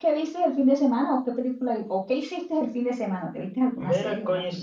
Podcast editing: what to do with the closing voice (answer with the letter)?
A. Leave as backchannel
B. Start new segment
B